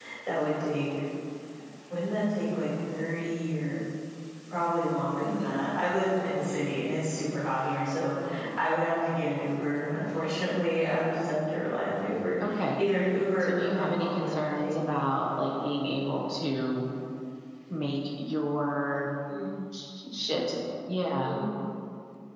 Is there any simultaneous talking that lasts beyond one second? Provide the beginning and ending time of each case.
13.4-15.0

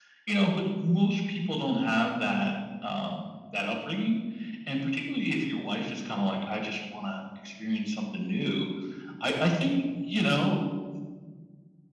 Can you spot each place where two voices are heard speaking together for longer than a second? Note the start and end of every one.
none

